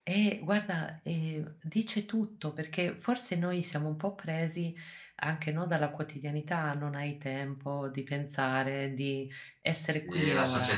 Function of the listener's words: taking over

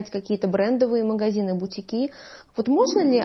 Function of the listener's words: listening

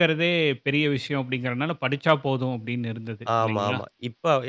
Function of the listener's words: taking over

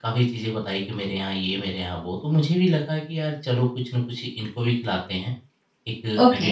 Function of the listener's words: listening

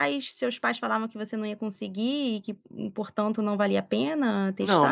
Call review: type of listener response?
taking over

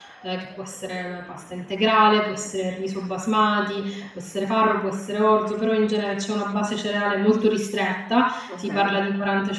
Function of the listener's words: listening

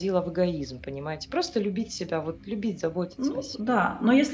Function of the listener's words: taking over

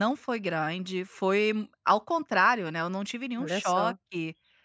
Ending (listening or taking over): listening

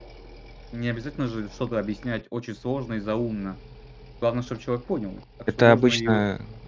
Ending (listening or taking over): taking over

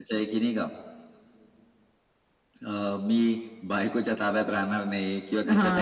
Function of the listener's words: listening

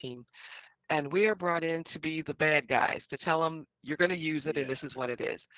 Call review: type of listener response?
listening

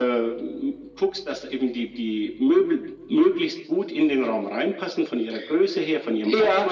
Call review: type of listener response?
taking over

